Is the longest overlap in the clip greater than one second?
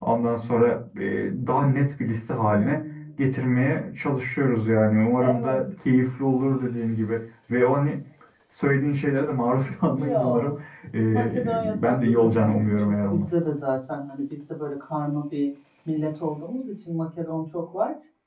Yes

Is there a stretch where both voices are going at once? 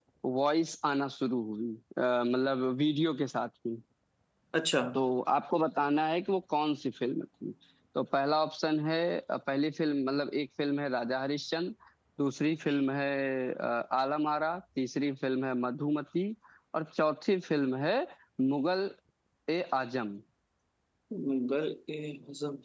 No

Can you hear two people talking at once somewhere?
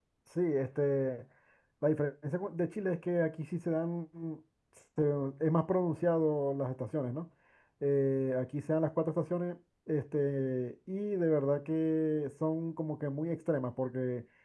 No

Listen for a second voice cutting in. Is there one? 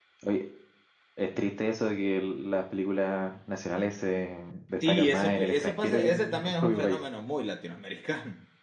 Yes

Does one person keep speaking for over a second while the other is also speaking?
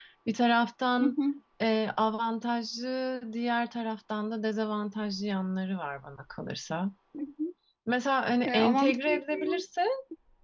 Yes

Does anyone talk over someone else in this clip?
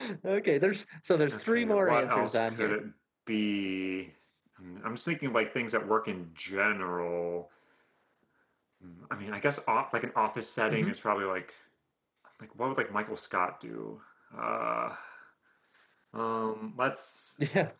Yes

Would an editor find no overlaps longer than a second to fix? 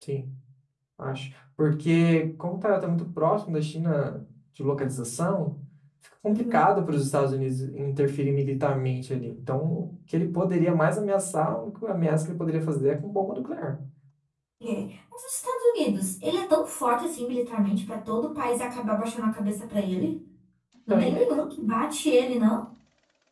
Yes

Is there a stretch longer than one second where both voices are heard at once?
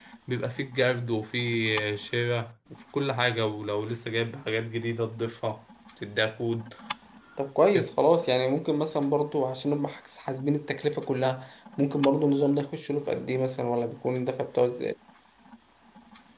No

